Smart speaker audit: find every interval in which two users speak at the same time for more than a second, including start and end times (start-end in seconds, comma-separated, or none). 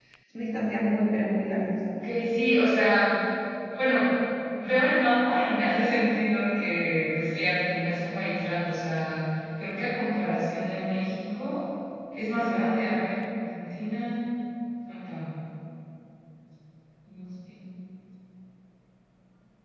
none